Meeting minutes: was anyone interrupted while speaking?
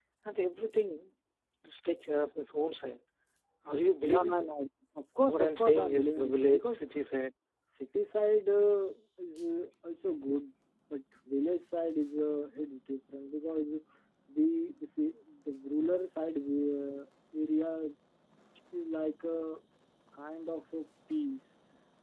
Yes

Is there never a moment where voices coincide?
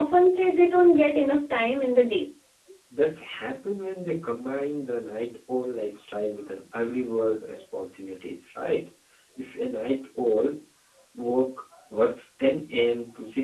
Yes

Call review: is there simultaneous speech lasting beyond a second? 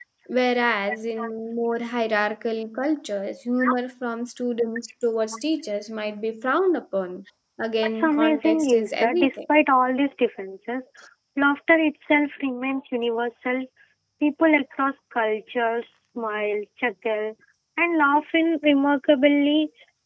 Yes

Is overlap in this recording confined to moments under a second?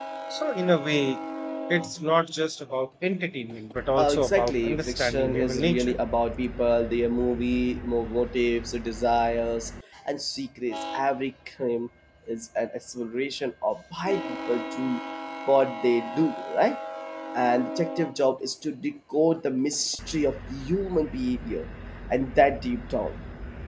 No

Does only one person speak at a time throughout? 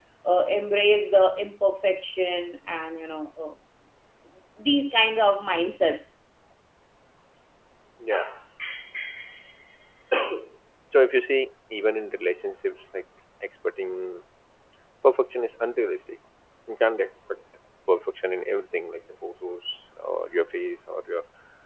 Yes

